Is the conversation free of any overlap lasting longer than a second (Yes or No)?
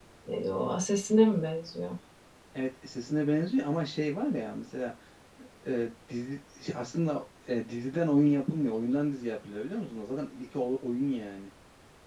Yes